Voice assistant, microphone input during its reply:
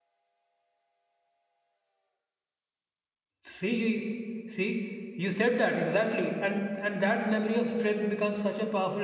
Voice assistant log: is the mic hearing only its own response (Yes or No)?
No